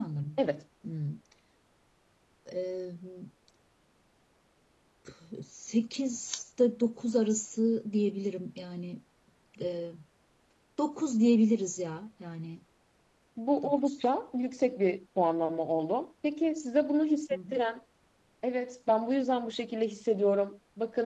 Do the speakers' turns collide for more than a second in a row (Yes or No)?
No